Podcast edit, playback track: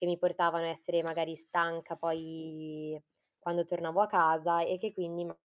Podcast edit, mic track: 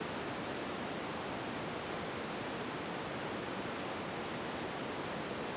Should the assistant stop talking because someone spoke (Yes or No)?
No